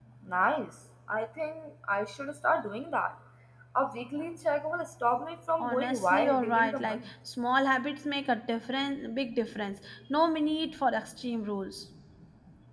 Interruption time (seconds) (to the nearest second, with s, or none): 6 s